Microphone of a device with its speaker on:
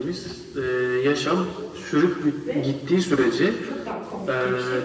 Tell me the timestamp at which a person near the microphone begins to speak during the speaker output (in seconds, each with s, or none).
2.5 s